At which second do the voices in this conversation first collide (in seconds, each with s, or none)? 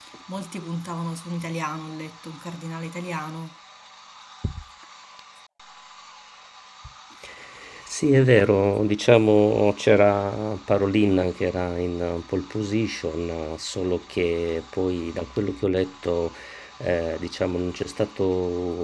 none